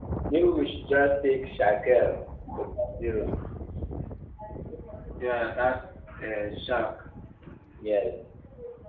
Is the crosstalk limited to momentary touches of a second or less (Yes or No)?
Yes